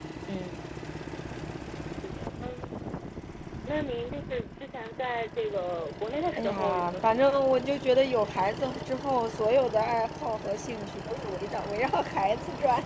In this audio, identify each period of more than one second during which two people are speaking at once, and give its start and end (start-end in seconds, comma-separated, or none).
6.4-7.6